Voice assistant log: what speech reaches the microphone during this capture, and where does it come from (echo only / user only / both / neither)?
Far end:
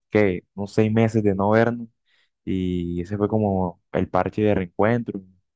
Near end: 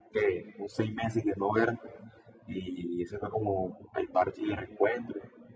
echo only